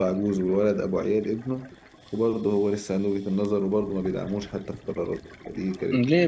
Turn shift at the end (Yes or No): Yes